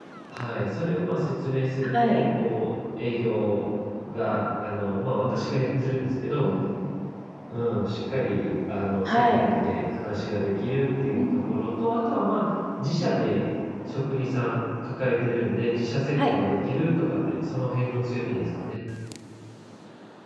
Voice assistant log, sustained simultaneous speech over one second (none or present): none